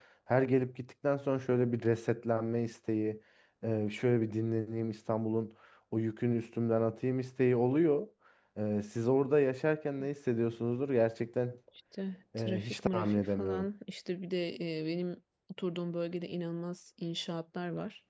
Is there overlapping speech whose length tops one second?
Yes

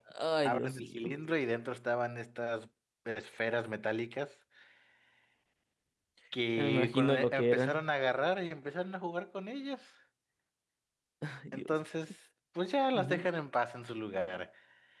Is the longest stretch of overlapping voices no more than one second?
No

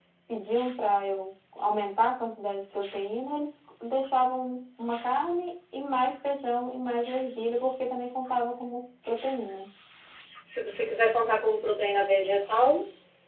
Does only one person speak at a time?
Yes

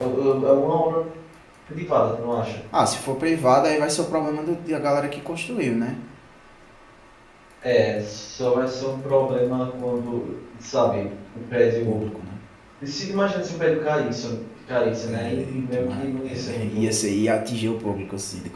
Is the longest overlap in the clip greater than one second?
Yes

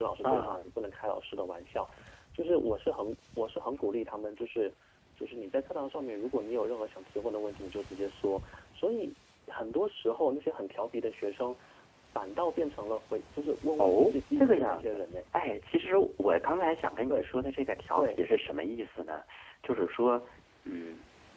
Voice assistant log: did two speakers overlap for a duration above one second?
Yes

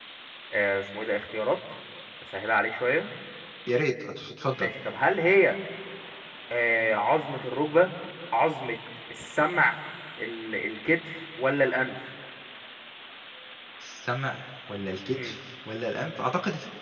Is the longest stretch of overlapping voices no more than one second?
Yes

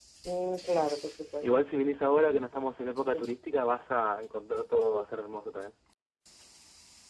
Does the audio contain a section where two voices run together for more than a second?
No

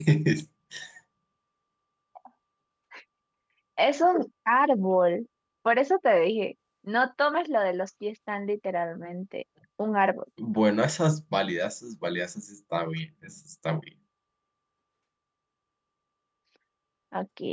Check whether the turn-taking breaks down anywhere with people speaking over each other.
No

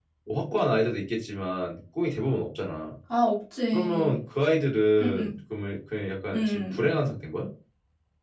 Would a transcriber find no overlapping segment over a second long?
Yes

